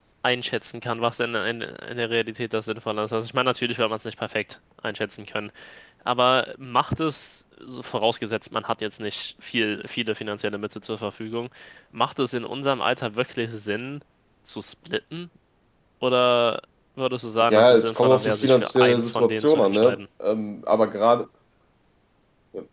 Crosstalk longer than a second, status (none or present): present